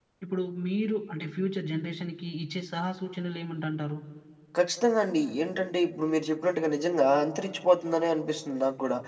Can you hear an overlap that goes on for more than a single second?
No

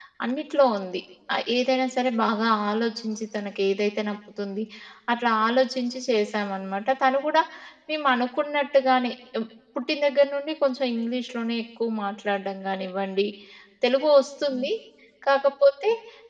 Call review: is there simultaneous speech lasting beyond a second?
No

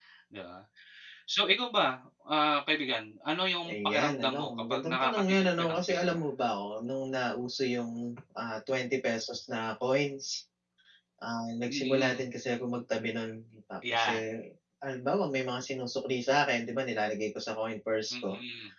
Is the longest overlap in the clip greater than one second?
Yes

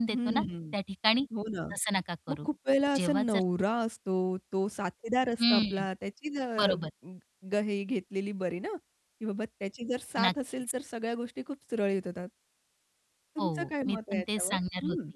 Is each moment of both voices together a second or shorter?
No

